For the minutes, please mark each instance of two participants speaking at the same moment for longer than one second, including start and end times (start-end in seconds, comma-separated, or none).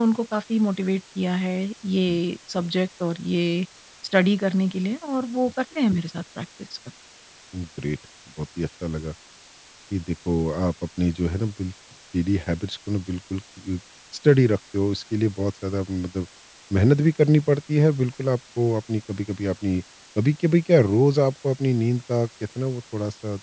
none